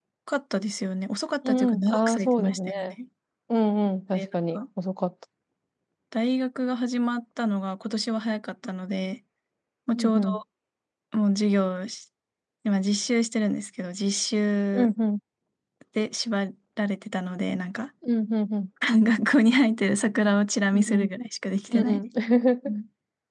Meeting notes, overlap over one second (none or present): present